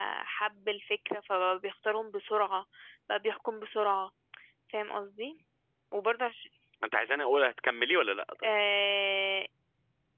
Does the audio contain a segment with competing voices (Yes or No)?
No